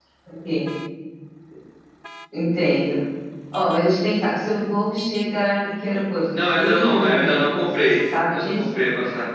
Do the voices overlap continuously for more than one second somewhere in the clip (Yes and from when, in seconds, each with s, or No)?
Yes, from 6.3 s